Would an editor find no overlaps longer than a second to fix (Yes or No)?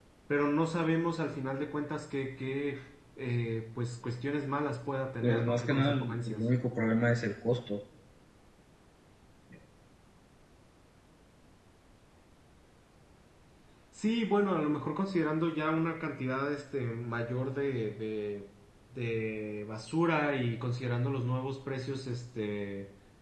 No